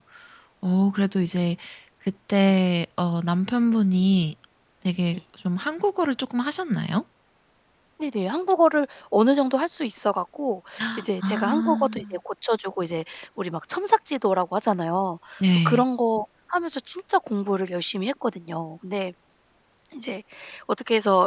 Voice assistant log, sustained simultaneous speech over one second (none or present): present